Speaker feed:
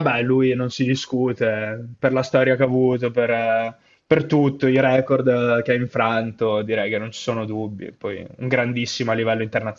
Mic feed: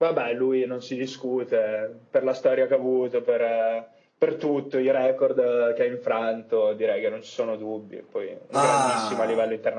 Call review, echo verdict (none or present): present